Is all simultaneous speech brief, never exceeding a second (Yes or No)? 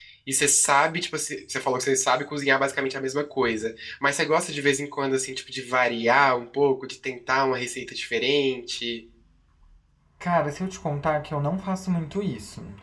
Yes